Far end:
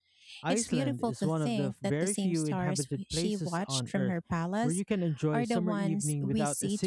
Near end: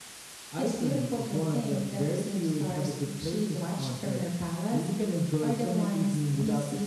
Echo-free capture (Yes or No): No